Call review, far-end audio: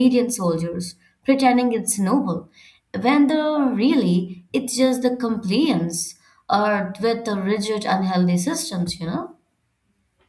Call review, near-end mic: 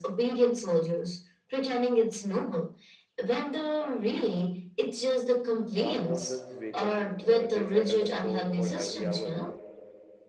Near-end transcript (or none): Alarms don't just wake us; uh, they set us a tone for every hour